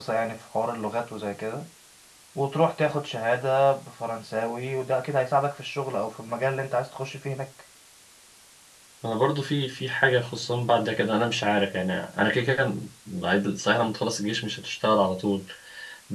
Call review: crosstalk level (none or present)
none